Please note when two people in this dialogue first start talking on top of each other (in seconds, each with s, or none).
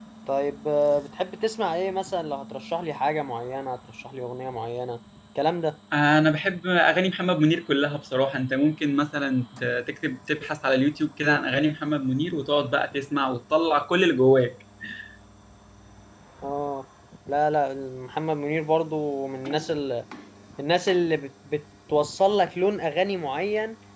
none